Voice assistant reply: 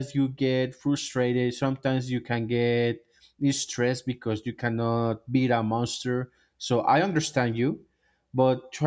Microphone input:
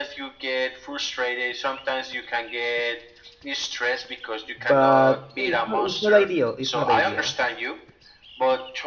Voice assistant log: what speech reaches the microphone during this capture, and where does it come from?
both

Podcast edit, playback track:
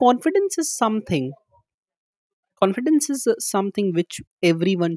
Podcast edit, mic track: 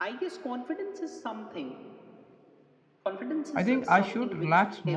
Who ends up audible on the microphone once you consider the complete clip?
both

